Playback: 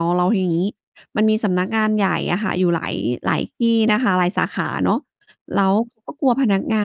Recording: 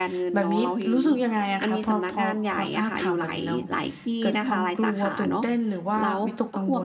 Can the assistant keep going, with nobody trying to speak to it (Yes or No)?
No